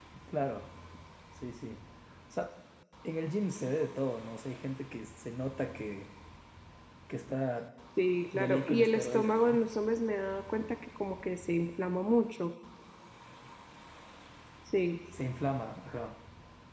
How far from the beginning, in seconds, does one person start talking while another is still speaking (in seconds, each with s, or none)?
8.3 s